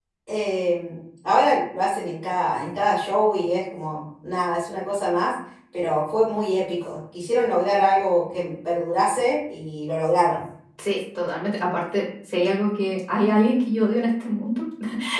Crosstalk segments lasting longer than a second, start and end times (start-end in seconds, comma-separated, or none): none